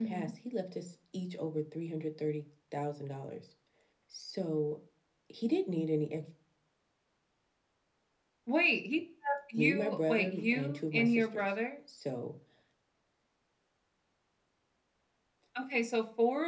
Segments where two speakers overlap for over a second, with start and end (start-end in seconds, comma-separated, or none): 9.6-11.6